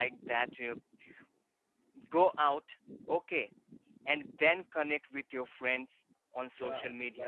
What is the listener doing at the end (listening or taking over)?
taking over